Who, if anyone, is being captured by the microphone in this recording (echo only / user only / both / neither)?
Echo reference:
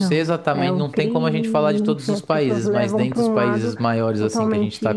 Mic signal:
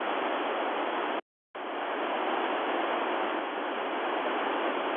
neither